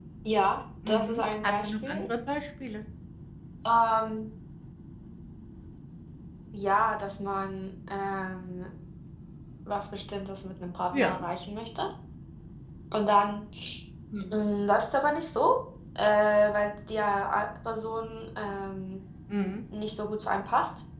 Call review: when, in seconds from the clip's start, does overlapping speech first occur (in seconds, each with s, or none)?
0.9 s